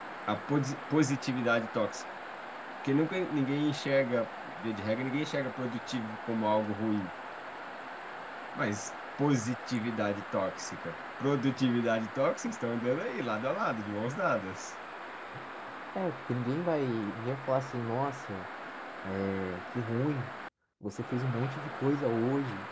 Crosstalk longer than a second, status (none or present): none